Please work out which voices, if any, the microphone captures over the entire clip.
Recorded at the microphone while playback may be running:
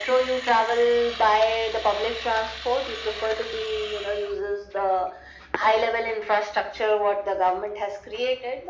echo only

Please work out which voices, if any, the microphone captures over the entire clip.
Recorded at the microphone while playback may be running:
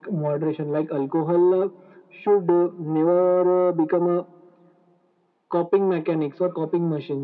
echo only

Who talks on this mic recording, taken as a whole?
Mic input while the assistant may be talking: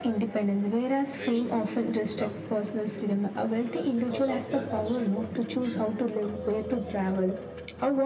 both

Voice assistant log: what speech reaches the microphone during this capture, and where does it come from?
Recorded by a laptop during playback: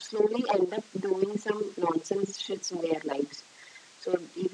echo only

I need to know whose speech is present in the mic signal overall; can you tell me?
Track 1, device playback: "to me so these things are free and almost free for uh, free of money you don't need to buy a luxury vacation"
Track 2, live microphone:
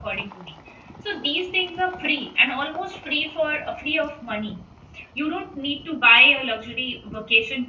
echo only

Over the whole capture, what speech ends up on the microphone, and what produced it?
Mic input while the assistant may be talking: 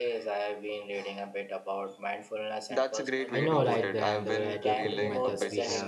both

